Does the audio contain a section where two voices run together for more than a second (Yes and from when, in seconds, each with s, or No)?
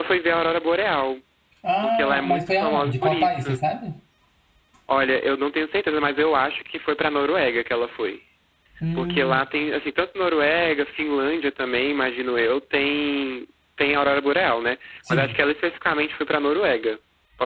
Yes, from 1.8 s